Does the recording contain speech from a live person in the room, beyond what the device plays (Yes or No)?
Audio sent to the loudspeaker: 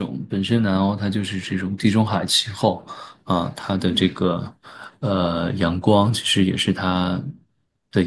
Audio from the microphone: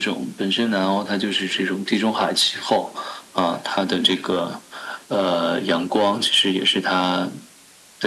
No